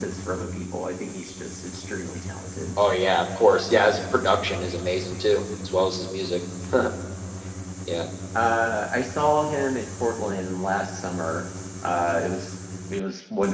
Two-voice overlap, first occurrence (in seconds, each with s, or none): none